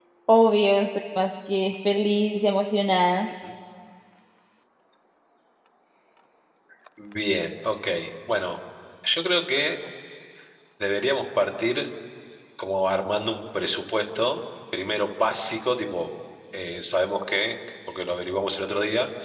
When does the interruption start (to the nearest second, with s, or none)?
none